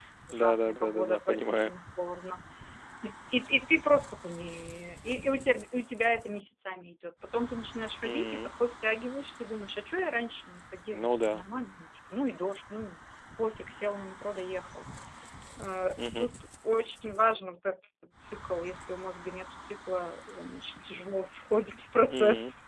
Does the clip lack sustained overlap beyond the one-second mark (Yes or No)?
No